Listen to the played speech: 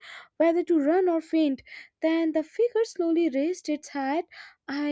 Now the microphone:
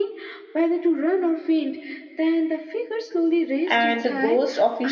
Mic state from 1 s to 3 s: echo only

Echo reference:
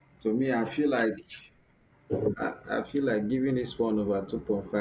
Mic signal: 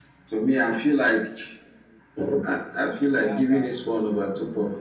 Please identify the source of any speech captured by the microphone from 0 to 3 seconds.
echo only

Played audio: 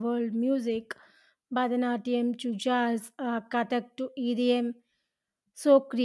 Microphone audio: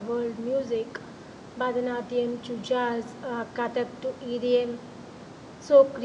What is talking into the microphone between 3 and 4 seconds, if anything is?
echo only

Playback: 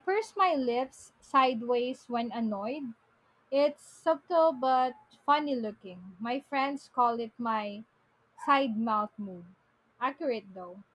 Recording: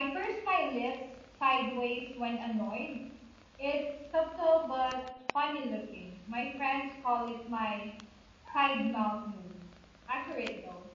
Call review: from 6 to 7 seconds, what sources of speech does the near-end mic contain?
echo only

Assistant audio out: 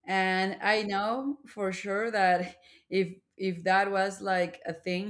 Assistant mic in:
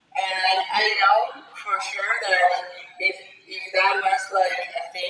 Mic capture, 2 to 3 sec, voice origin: echo only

